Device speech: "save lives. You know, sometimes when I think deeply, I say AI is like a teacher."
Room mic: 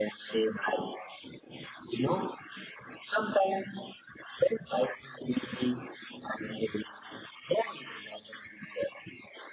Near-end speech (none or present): none